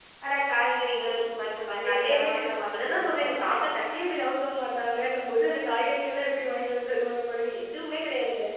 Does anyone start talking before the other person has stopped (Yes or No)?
Yes